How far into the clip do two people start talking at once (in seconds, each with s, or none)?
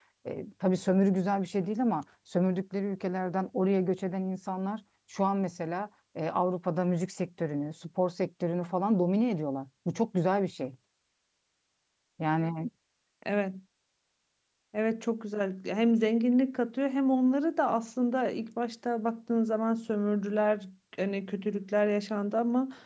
none